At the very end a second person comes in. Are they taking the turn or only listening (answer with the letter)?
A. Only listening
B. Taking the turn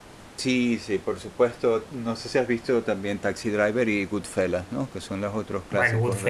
B